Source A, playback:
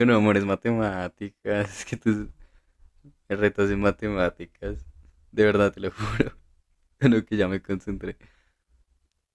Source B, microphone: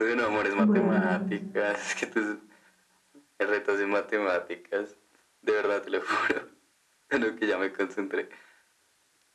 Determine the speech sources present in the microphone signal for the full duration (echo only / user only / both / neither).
both